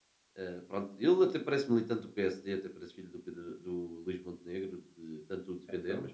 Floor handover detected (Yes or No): No